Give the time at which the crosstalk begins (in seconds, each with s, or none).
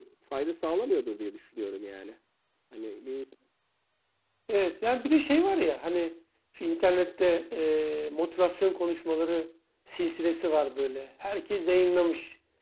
none